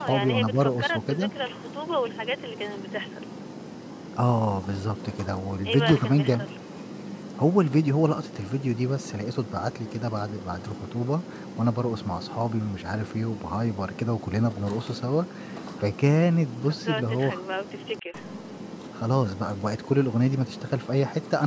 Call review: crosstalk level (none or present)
present